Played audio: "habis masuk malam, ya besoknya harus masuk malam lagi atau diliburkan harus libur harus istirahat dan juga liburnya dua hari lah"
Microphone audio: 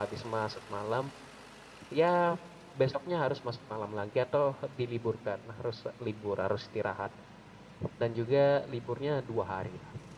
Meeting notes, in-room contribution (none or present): none